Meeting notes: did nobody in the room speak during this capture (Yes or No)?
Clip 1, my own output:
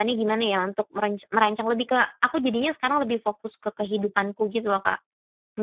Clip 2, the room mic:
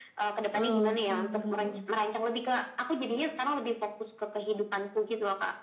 No